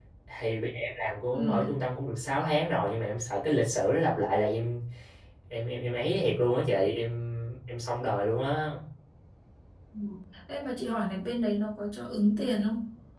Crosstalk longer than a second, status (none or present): none